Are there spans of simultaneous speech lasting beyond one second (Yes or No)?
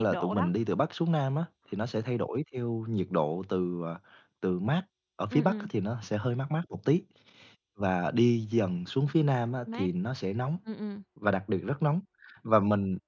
No